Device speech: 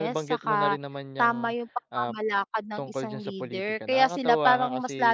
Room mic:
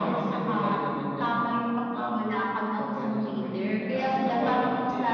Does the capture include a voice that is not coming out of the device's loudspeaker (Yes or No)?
No